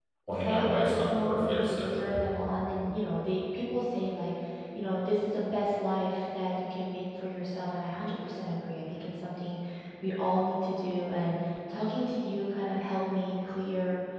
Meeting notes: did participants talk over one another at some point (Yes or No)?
Yes